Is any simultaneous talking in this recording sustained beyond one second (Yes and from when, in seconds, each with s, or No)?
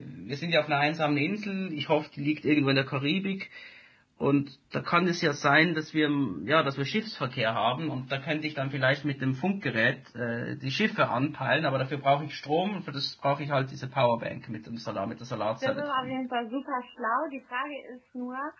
No